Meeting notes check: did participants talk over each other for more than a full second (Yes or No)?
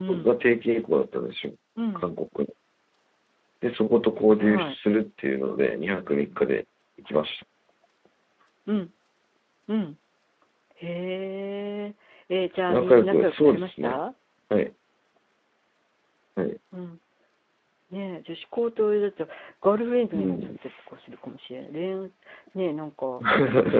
Yes